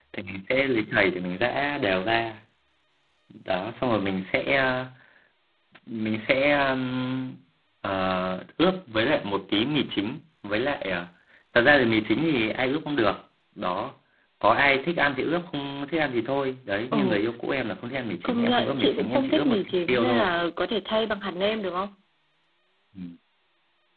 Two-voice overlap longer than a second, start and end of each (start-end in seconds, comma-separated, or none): 18.2-20.2